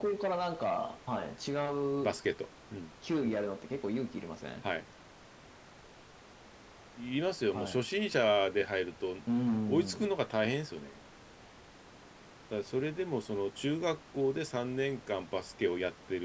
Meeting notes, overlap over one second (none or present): none